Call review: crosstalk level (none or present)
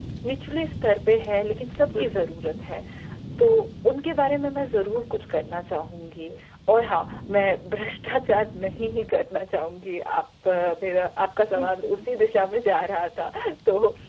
present